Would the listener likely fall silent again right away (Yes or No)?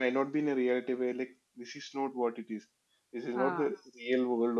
Yes